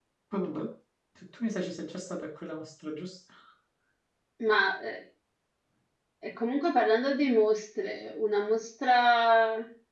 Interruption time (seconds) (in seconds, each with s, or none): none